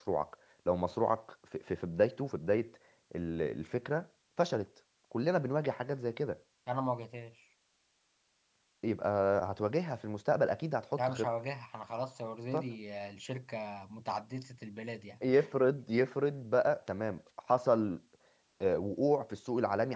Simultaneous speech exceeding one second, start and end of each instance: none

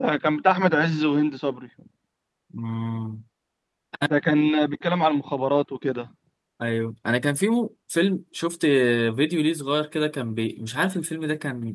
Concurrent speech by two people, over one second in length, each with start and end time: none

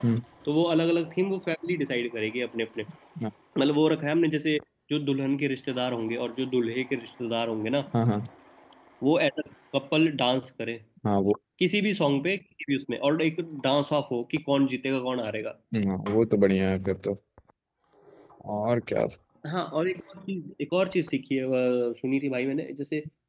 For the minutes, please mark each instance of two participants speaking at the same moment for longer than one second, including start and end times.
none

